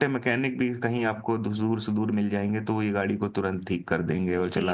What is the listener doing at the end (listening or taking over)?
taking over